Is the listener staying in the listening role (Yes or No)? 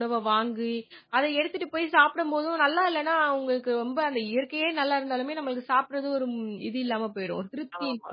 No